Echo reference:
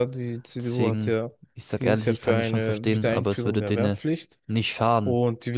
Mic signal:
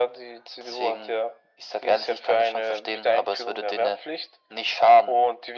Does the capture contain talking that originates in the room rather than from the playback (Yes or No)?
No